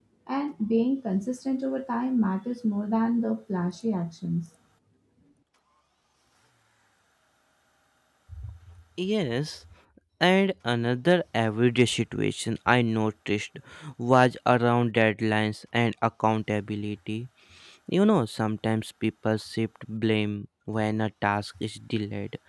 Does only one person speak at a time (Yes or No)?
Yes